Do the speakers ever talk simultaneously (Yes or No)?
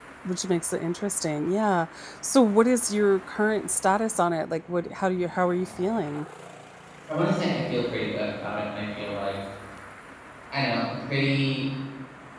No